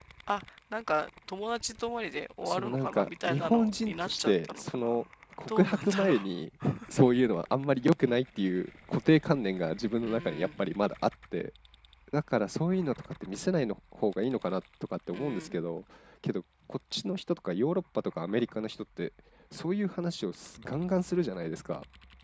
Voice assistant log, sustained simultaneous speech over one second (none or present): present